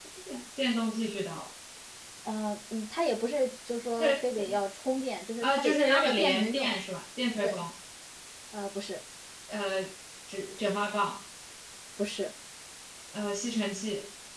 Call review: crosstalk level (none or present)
present